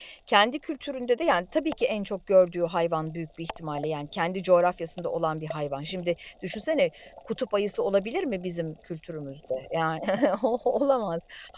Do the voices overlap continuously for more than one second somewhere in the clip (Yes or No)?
No